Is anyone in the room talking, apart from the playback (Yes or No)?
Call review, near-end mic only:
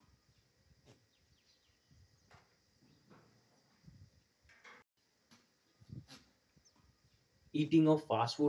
Yes